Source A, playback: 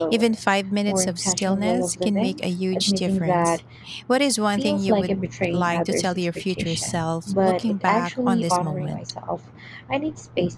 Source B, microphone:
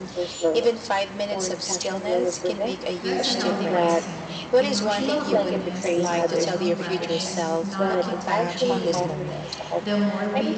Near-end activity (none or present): present